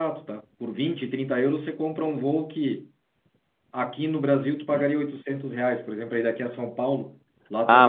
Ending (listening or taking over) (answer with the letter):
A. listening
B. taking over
B